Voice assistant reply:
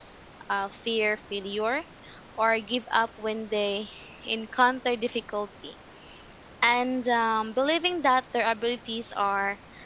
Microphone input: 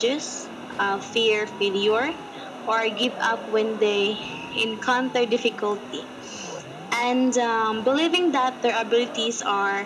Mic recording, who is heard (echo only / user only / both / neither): echo only